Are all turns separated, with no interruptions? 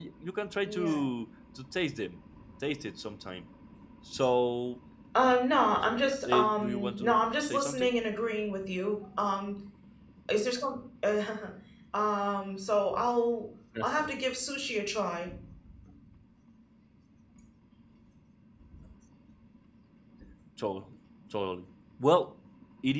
No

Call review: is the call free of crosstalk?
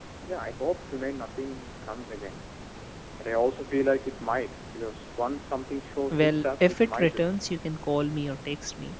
No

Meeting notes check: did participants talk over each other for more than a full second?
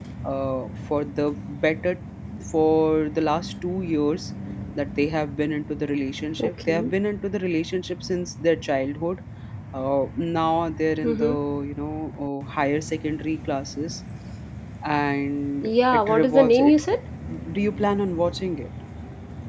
Yes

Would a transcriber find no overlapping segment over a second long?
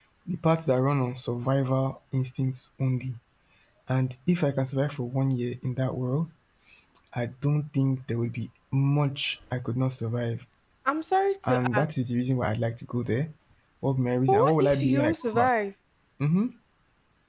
No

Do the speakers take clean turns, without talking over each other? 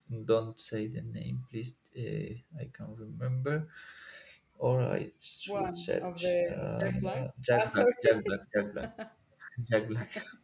No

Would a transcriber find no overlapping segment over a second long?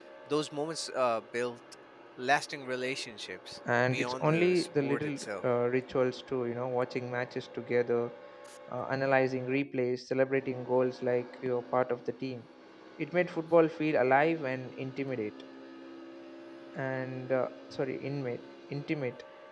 No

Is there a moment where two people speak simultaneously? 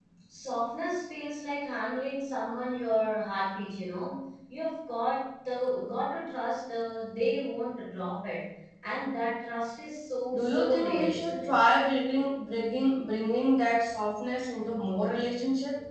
Yes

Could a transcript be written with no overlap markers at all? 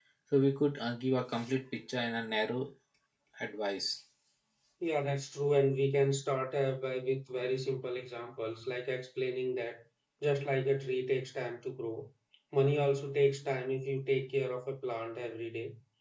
Yes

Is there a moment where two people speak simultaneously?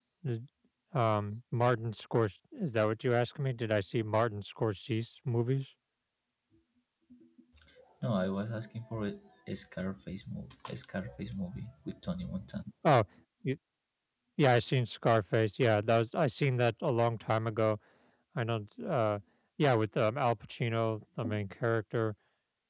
No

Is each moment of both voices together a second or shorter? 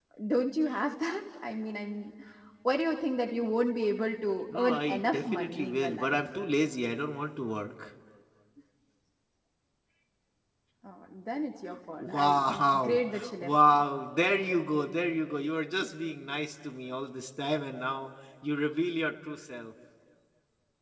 No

